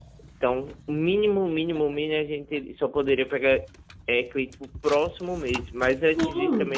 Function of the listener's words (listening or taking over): listening